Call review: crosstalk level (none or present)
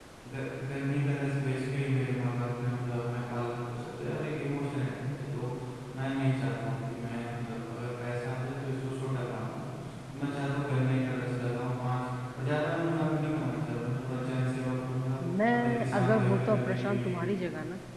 present